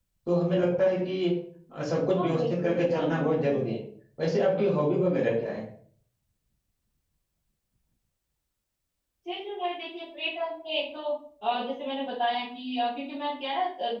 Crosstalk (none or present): present